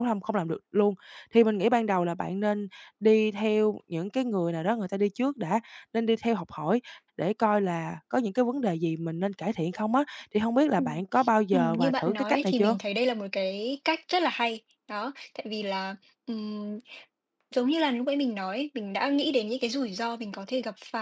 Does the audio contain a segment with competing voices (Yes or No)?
Yes